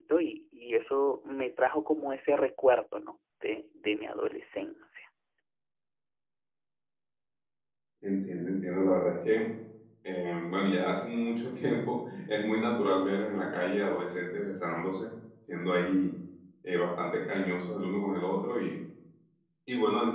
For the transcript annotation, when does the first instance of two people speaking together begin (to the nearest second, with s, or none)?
none